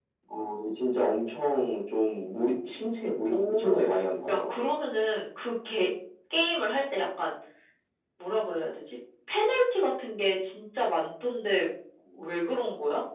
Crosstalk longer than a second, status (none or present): none